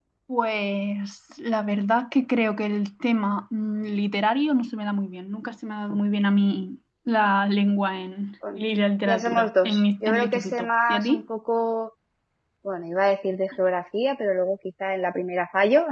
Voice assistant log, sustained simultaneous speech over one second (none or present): present